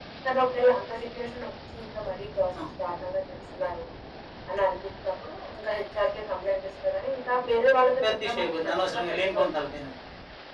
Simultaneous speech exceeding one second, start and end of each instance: 8.1-9.5

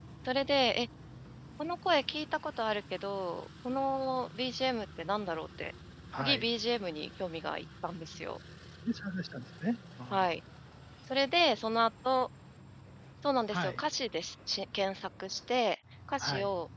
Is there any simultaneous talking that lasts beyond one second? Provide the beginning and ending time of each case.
none

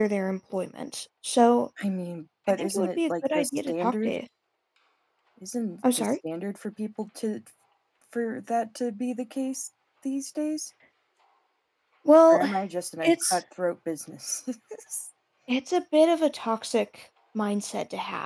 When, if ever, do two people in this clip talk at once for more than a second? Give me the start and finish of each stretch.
2.5-4.2

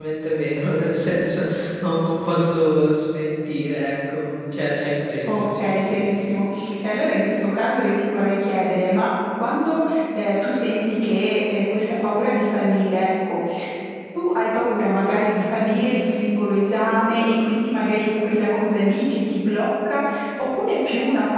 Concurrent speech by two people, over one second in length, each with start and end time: none

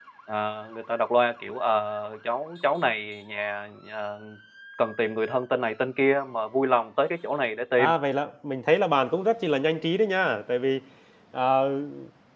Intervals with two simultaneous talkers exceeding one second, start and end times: none

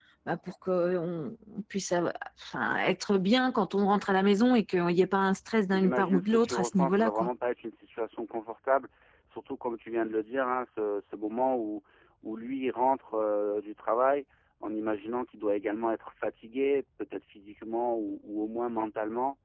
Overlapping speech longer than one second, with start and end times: 5.7-7.3

